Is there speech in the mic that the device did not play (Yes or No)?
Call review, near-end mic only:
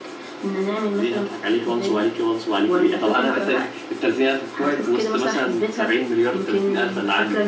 No